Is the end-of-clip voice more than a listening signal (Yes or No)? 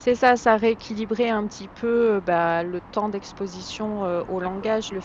No